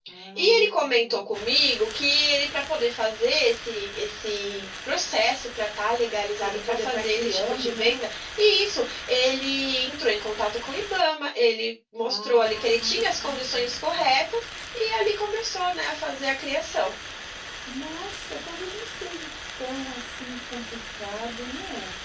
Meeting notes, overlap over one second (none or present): present